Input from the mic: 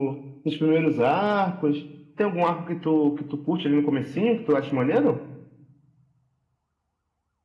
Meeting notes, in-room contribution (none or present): none